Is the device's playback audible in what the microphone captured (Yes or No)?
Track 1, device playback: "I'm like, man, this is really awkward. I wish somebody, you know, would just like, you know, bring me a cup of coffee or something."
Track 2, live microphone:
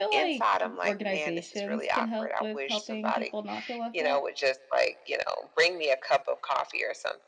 Yes